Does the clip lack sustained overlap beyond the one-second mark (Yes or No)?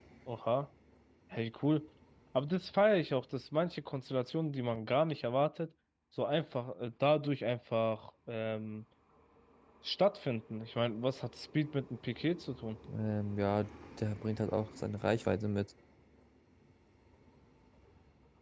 Yes